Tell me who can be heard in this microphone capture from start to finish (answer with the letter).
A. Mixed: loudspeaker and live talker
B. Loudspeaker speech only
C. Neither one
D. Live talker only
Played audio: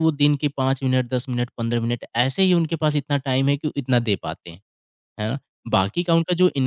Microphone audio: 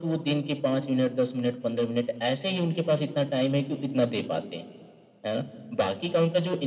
B